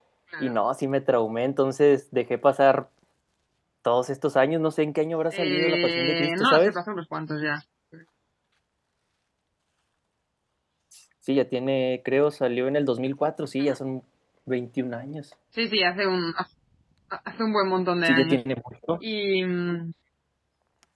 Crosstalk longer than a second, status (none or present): present